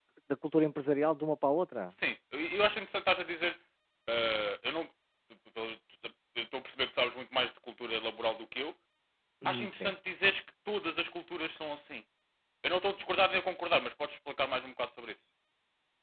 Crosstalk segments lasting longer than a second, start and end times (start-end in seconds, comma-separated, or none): none